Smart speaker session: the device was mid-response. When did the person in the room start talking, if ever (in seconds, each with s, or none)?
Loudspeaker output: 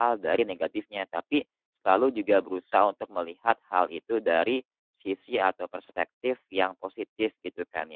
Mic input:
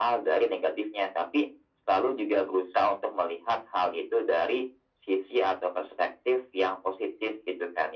none